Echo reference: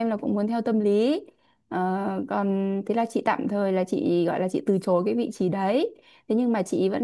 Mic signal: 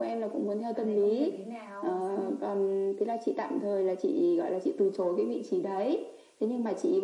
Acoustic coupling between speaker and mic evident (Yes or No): Yes